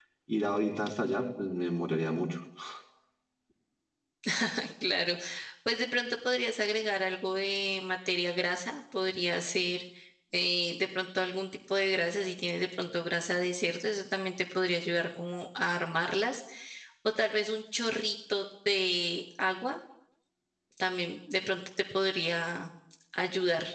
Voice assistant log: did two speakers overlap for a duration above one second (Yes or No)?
No